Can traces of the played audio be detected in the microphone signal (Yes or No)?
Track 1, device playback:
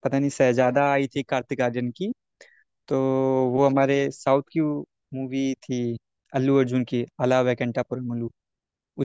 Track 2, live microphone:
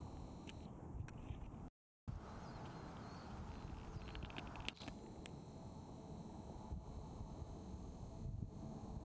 No